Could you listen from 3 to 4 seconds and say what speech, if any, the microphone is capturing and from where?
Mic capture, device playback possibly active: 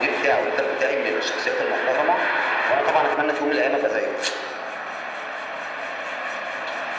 echo only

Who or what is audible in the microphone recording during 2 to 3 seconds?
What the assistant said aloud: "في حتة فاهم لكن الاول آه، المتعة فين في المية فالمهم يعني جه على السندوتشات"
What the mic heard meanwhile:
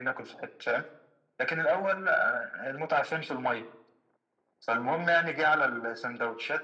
echo only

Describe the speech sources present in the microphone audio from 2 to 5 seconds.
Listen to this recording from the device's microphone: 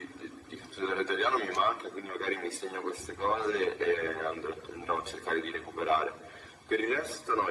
echo only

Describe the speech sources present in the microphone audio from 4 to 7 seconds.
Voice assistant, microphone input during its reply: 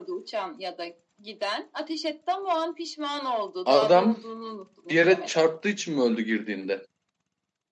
both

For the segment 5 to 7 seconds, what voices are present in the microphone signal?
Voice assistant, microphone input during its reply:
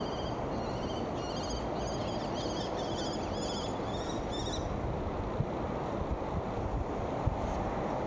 neither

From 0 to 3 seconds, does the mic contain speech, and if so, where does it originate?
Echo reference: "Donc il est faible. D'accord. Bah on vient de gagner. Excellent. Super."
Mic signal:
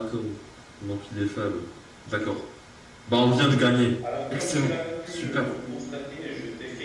echo only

